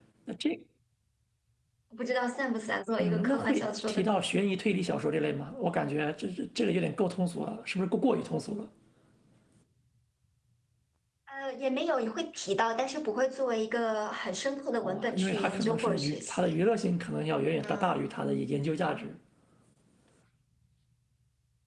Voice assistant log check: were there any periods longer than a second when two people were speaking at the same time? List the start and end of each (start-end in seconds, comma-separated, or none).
3.0-4.4, 14.8-16.6